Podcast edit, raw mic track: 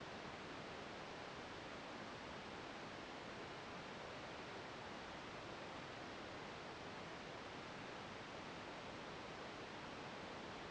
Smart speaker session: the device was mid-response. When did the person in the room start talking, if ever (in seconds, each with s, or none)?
none